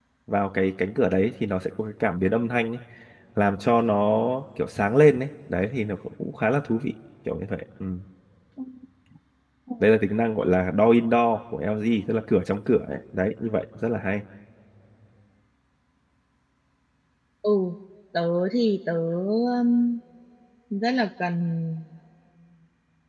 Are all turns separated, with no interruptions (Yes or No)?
Yes